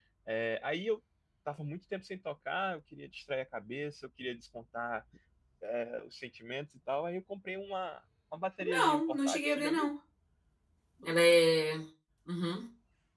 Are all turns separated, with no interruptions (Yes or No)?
No